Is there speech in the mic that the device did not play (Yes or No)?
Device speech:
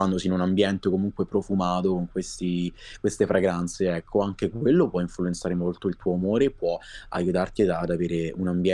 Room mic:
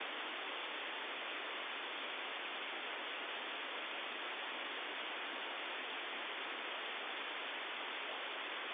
No